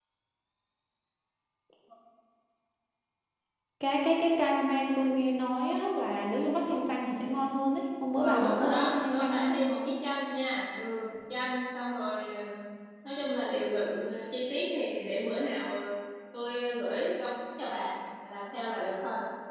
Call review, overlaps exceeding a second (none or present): present